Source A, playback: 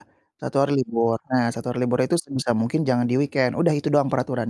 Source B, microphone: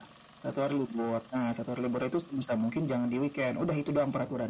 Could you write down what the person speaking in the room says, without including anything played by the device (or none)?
none